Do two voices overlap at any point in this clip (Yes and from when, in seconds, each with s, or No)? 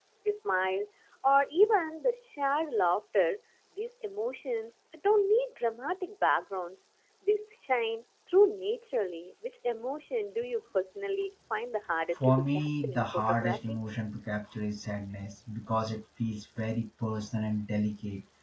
Yes, from 12.2 s